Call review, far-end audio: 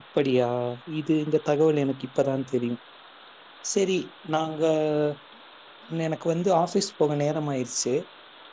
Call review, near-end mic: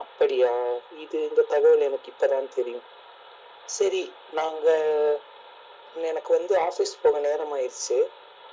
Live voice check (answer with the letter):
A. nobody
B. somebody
A